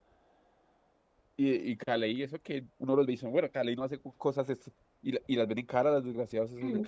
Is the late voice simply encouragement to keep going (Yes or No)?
No